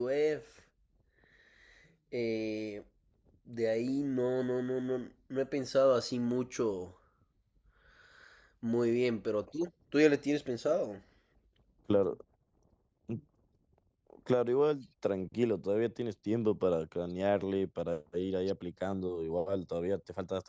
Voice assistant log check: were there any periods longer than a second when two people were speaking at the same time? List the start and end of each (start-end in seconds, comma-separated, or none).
none